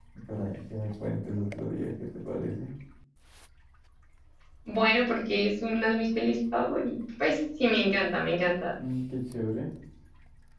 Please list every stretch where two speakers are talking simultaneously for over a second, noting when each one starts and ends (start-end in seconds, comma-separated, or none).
none